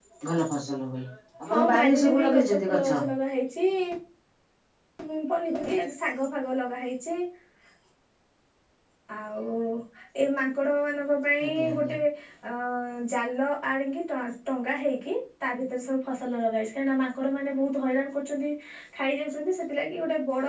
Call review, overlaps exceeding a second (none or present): present